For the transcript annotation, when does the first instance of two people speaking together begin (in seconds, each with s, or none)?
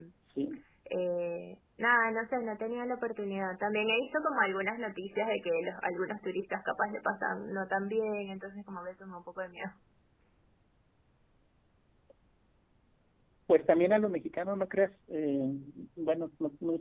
none